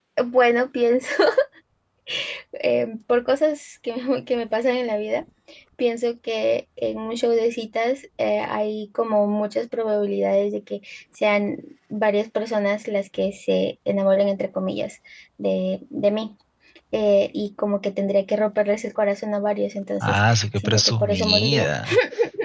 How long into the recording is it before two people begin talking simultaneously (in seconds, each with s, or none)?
20.0 s